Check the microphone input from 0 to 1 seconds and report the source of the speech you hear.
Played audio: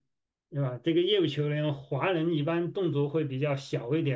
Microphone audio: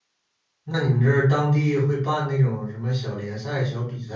user only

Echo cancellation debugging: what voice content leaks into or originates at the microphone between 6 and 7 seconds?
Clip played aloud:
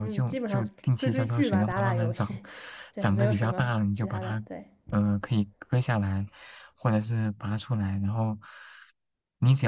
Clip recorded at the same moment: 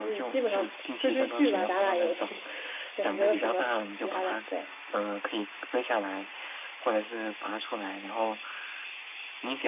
echo only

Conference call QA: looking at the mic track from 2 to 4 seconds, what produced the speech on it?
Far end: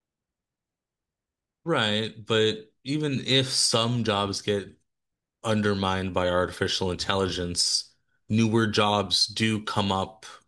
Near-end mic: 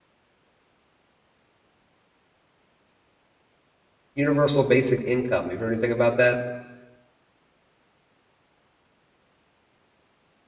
neither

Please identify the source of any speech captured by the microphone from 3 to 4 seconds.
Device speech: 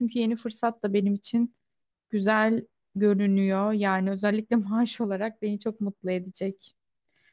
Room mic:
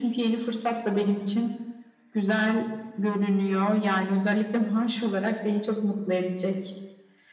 echo only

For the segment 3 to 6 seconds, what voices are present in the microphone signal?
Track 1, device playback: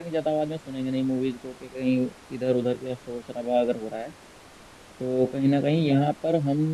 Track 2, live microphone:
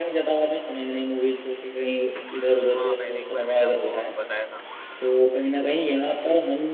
both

